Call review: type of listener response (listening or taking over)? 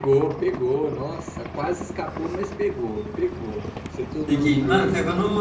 taking over